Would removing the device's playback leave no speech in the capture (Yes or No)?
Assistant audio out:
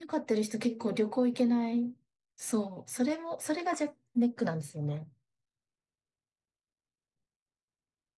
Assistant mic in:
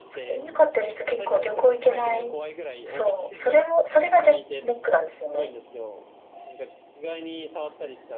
No